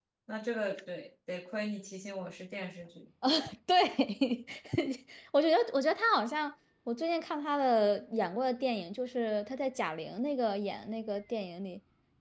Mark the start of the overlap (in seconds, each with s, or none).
none